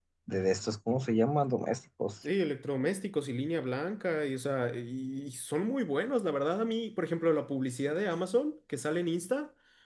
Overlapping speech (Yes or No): No